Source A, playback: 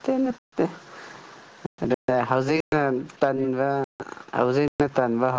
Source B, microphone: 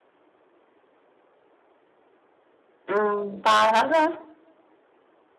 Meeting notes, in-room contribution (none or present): present